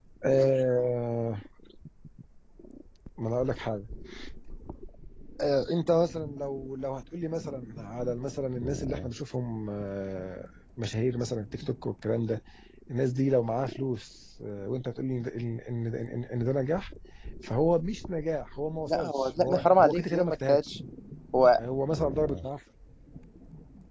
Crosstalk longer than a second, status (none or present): present